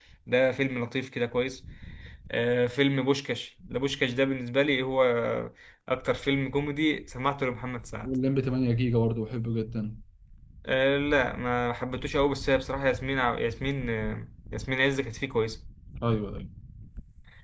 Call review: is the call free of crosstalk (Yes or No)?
Yes